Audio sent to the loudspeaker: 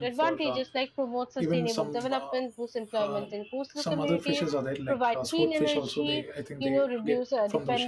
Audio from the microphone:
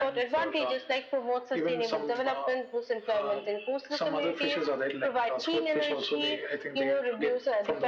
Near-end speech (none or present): none